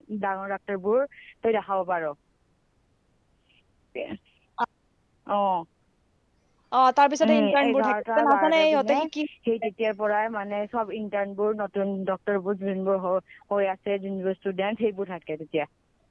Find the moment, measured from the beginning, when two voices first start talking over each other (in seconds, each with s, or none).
7.3 s